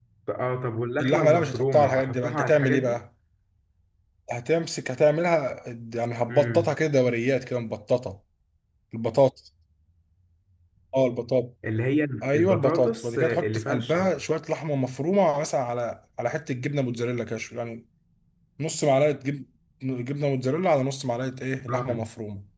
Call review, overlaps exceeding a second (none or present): present